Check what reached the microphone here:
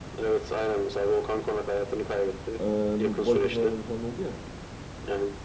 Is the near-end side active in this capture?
Yes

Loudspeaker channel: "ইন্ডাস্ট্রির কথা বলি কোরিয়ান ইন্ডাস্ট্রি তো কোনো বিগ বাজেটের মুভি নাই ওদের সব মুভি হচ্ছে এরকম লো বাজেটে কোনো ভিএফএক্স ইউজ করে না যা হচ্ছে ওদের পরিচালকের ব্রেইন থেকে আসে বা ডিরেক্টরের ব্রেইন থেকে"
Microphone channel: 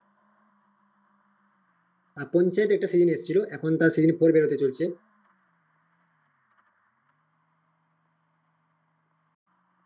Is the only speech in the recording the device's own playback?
No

